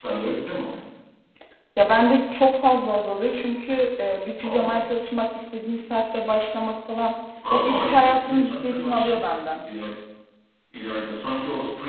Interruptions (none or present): present